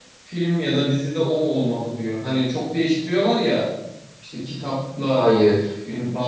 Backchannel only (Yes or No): Yes